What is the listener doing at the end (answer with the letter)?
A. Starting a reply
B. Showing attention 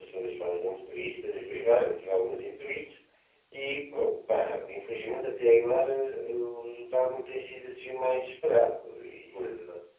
A